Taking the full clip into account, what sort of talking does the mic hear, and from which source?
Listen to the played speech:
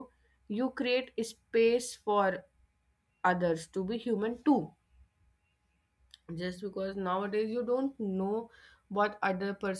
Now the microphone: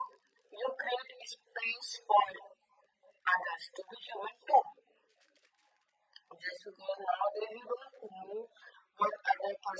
echo only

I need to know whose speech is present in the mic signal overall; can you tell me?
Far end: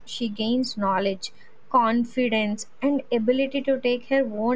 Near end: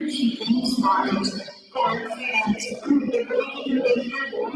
echo only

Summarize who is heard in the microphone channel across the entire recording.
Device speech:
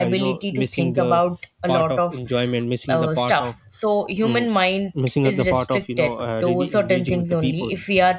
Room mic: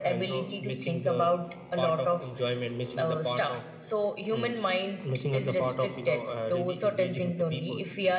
echo only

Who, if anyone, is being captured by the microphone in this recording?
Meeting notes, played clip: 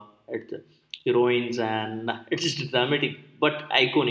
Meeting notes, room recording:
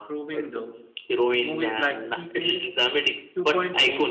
both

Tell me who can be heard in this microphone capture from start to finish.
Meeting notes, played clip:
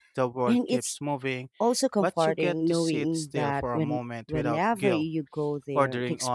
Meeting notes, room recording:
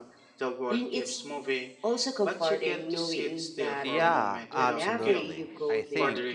both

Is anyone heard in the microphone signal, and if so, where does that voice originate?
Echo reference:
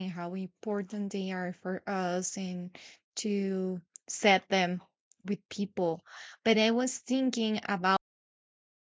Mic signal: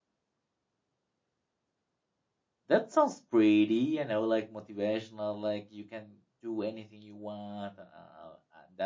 user only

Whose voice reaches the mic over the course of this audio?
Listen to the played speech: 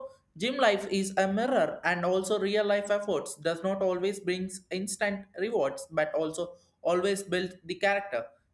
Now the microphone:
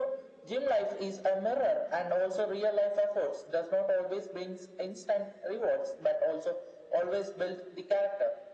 echo only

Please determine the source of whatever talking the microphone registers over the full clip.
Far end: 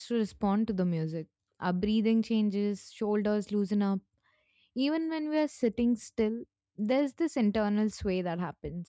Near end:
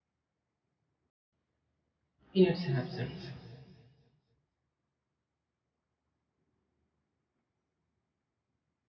user only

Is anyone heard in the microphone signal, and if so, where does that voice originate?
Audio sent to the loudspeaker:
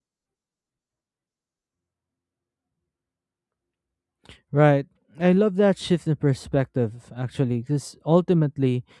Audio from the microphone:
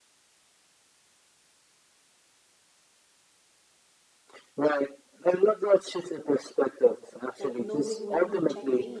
both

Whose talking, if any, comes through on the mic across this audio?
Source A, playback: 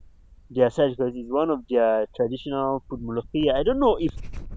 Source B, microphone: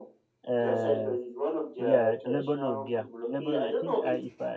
both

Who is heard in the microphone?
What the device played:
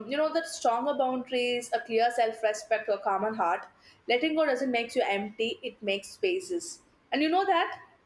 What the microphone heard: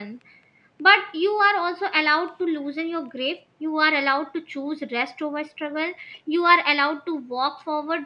user only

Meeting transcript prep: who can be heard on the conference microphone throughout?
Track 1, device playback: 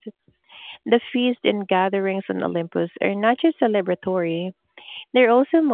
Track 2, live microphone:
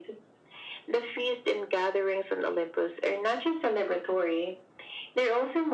echo only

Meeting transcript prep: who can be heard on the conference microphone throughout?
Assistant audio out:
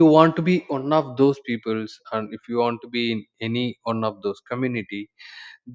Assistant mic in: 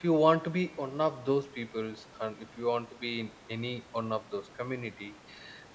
echo only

